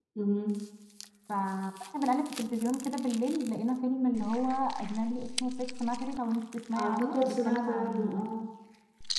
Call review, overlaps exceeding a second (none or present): present